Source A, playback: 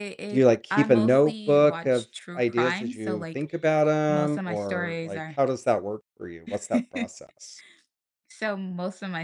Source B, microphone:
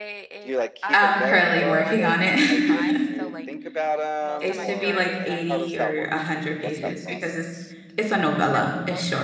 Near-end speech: present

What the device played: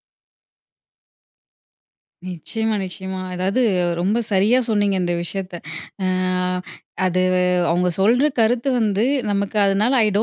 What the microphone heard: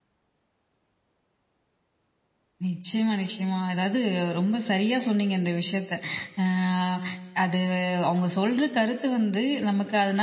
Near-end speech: none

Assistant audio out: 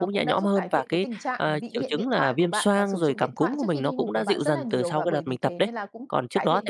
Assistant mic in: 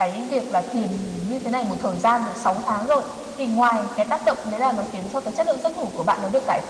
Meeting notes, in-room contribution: present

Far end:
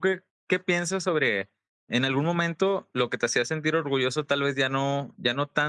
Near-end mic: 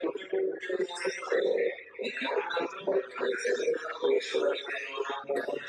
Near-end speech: none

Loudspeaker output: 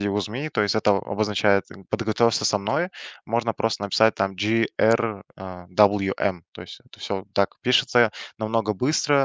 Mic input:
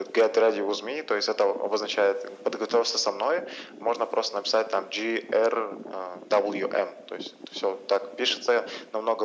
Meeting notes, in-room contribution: none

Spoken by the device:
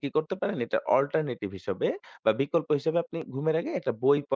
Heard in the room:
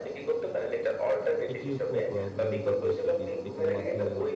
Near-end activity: present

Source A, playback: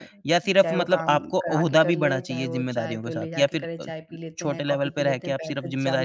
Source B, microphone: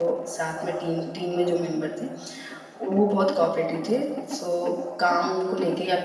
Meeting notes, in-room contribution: present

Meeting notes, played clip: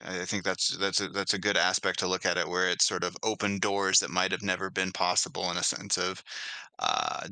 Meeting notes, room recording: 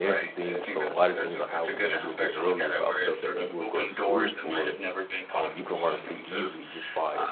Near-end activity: present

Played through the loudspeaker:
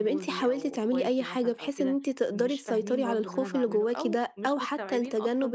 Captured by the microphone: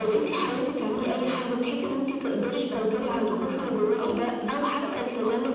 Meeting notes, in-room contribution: none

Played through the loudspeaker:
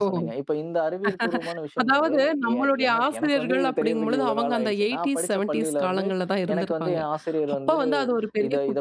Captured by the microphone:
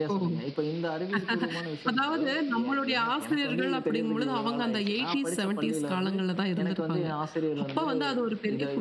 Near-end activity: none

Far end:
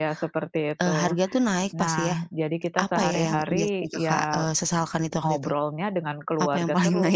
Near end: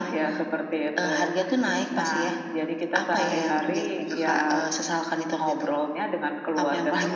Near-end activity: none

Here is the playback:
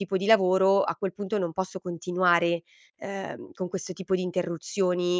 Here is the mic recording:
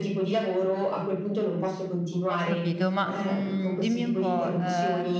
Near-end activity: present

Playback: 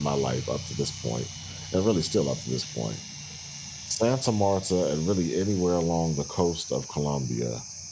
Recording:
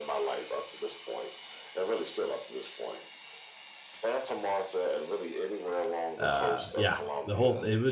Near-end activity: present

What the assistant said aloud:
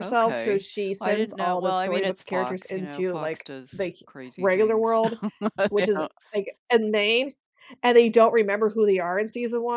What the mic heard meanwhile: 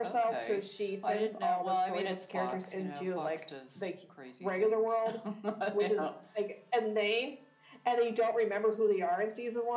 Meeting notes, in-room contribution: none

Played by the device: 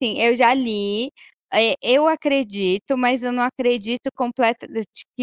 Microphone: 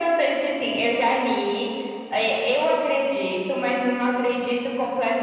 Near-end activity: none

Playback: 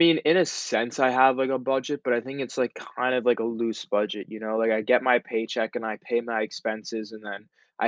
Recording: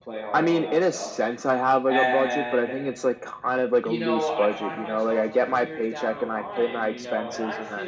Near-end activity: present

